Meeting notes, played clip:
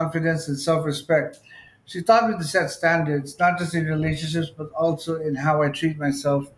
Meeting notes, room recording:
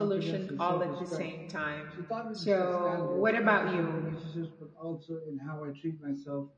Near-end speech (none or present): present